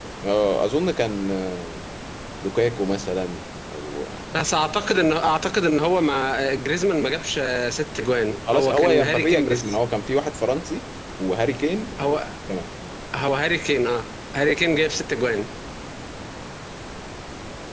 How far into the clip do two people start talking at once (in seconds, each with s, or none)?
8.5 s